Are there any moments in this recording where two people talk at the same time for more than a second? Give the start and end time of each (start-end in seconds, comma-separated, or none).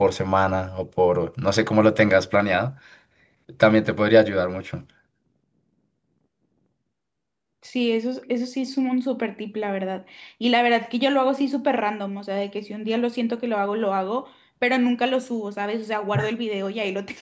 none